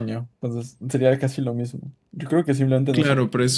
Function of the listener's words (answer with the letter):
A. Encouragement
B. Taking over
B